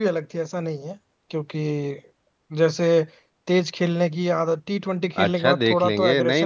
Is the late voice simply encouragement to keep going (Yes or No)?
No